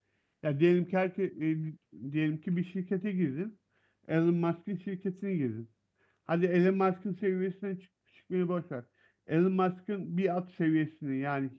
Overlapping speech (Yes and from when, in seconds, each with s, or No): No